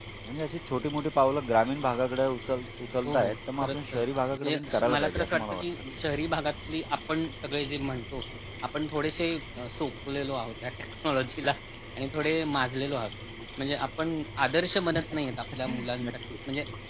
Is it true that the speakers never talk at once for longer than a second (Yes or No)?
No